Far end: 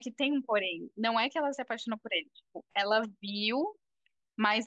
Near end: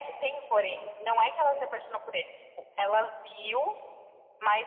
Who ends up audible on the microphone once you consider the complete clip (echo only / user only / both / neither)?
echo only